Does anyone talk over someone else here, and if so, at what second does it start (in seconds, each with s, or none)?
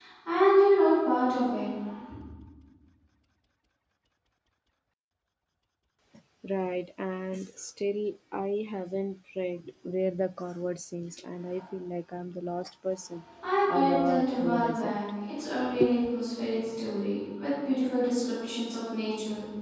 13.7 s